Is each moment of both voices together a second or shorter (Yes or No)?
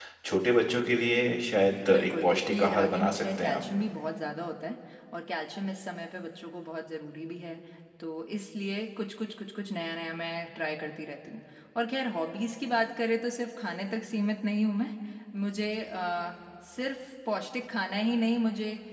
No